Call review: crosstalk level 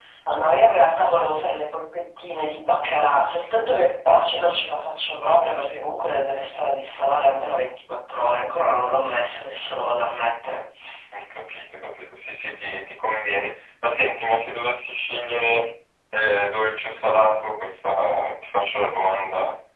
none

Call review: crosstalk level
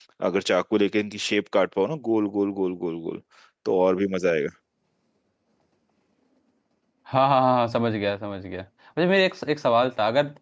none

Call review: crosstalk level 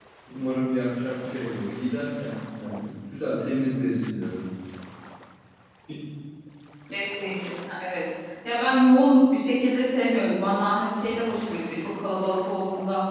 none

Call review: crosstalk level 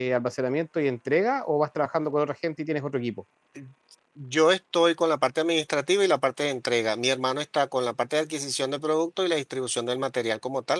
none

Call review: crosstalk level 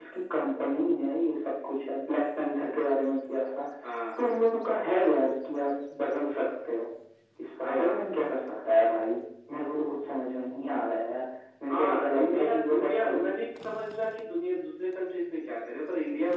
present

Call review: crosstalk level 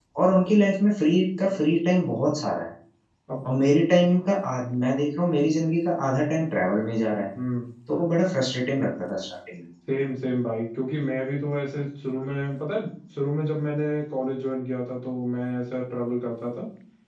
none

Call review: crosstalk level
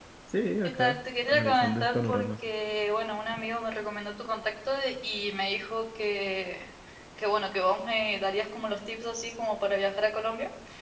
present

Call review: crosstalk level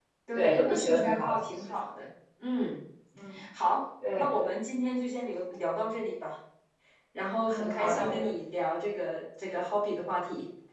present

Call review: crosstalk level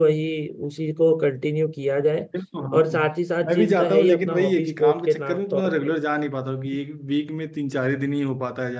present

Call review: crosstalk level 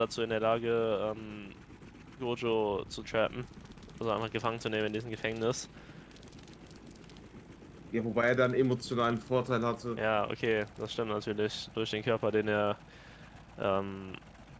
none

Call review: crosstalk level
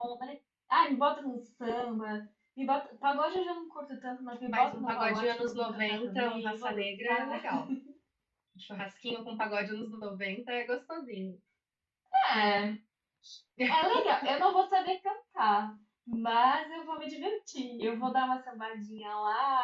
present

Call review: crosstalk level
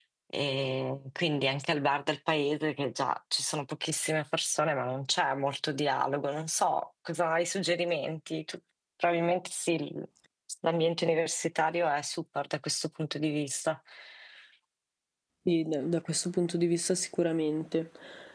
none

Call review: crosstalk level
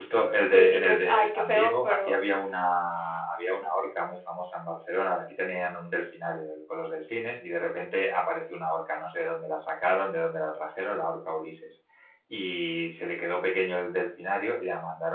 present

